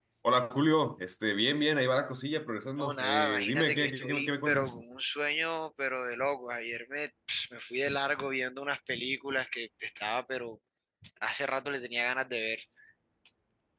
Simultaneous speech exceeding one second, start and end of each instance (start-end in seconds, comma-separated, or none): 2.8-4.7